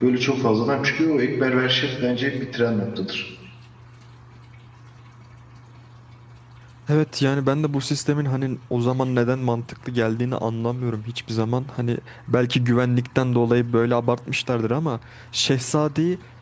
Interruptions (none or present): none